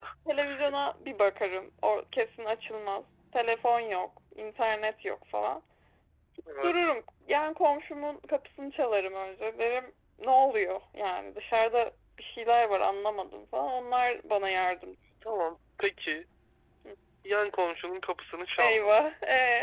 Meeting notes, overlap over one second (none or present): none